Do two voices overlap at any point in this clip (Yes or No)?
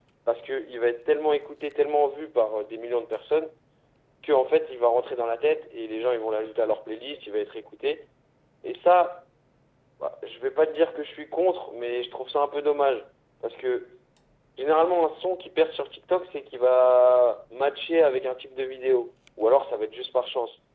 No